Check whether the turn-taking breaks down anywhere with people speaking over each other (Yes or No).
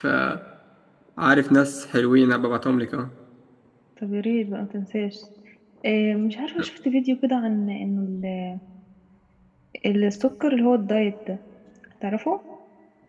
No